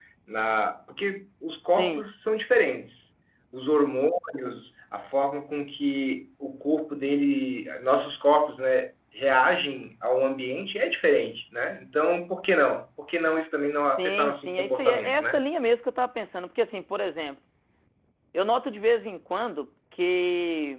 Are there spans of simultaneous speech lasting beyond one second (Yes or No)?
Yes